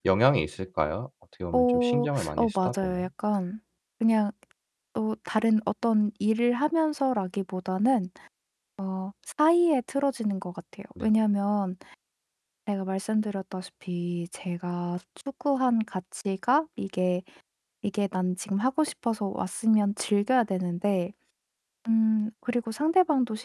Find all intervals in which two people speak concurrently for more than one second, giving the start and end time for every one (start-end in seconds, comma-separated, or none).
1.5-3.1